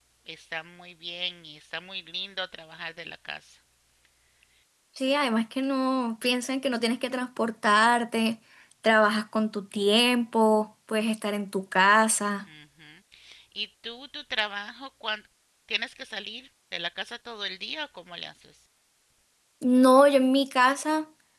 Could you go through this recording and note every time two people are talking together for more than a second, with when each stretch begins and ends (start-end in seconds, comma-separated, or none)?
none